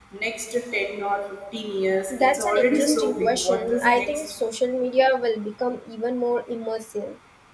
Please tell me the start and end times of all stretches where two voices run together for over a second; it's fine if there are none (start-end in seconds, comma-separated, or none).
2.1-4.1